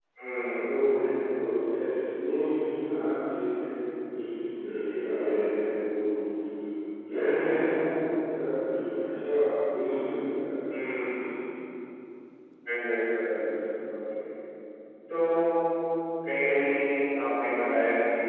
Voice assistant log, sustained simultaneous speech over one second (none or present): none